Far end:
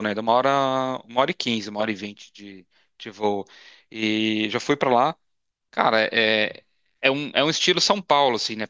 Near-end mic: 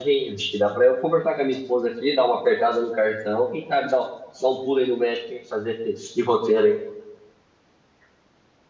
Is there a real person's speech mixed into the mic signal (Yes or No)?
Yes